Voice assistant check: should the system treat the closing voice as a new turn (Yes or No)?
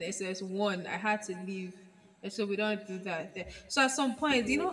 No